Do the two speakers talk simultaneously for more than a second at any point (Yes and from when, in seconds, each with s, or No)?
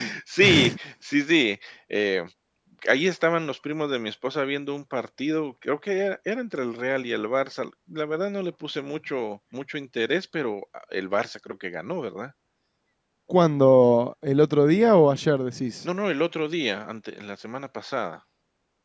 No